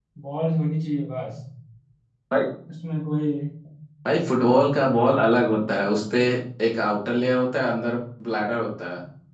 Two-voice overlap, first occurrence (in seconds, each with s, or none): none